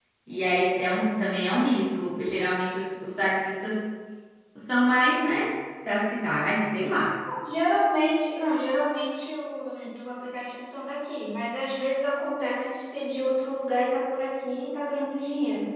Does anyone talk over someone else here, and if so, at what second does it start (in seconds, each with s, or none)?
none